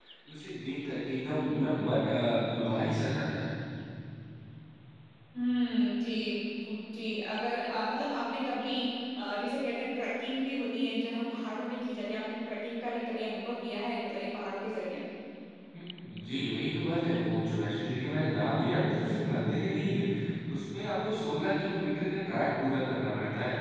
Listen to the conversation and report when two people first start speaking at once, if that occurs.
none

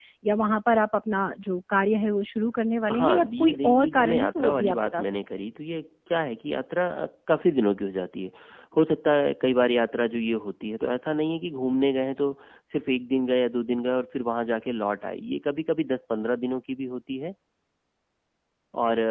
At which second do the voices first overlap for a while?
3 s

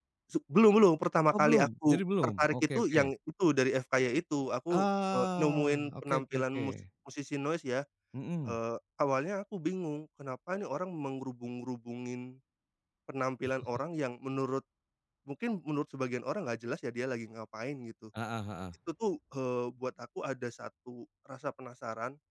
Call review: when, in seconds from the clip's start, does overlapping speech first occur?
1 s

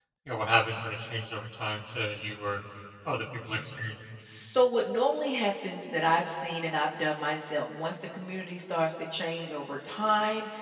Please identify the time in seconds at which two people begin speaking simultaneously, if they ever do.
none

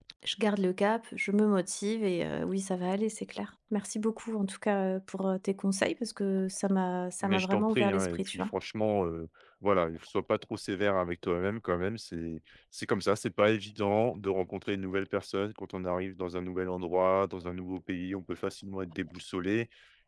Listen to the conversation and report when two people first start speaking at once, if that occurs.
7 s

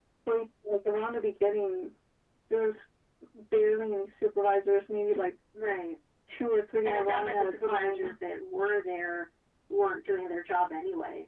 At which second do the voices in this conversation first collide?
7 s

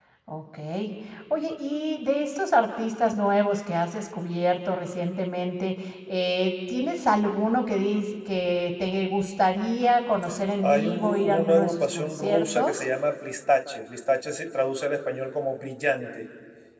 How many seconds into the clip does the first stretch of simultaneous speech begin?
11 s

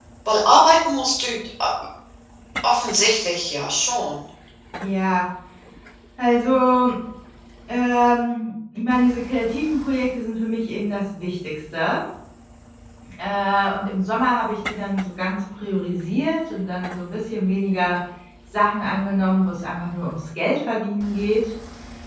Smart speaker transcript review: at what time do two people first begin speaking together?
none

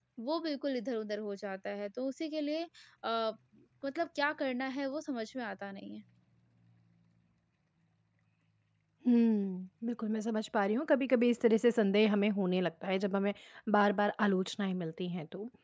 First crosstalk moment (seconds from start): none

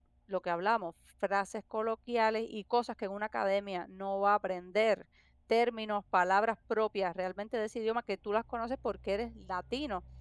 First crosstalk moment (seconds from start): none

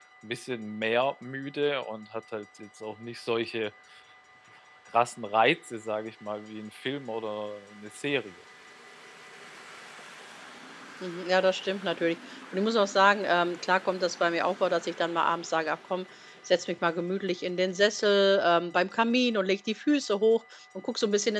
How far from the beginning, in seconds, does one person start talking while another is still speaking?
none

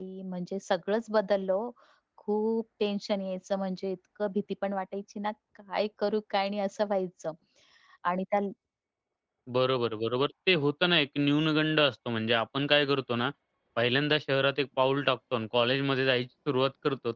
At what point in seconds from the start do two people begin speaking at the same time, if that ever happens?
none

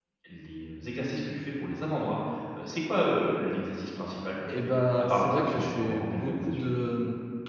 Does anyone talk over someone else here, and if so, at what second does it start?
4 s

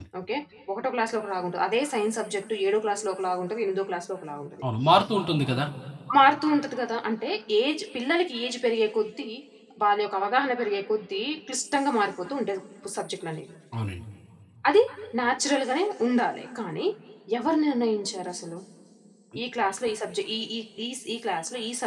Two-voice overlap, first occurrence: none

